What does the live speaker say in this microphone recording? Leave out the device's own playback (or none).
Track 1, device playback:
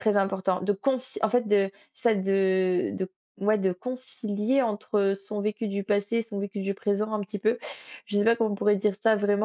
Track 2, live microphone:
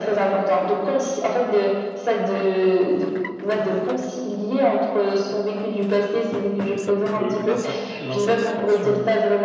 mais ça peut l'insa l'insatisfaction